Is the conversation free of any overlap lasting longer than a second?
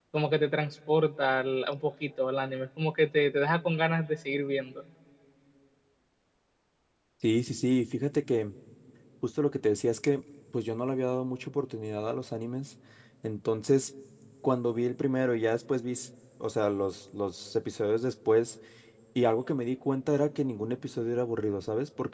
Yes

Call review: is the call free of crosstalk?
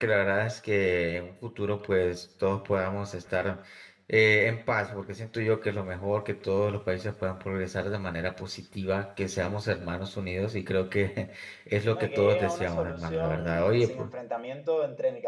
No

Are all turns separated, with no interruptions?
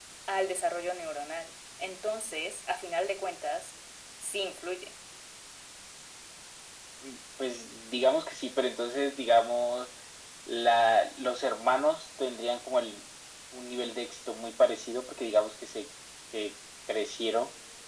Yes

